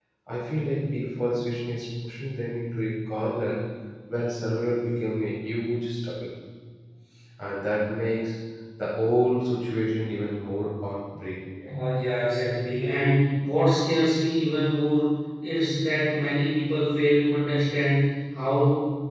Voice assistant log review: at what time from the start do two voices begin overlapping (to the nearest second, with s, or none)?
none